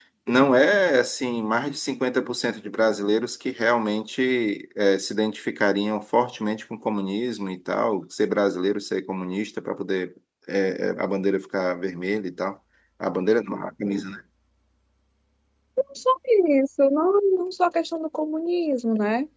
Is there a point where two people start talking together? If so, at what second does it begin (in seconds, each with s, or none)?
none